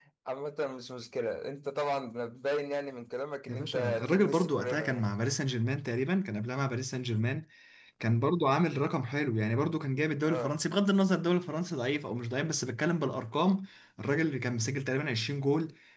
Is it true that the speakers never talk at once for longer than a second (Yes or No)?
No